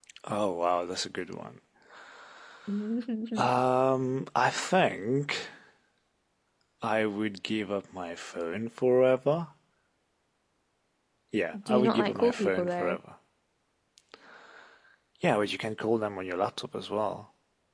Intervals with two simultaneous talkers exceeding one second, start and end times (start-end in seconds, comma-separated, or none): 11.7-13.0